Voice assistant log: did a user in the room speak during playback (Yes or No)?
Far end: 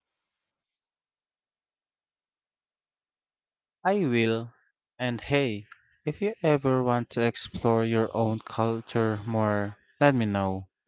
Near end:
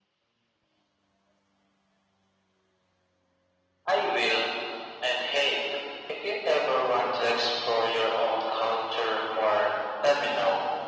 No